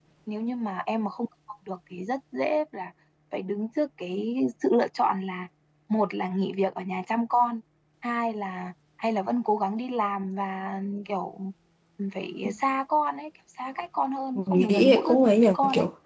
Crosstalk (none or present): present